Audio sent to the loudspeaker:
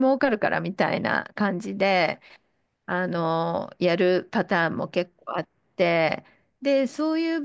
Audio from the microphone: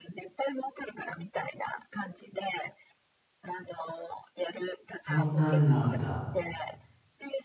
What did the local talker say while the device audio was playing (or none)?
そんなになんだ。